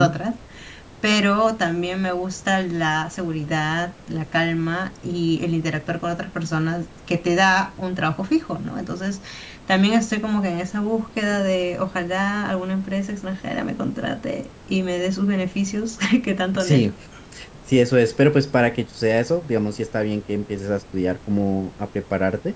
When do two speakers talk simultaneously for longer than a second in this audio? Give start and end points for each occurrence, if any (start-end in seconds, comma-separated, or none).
none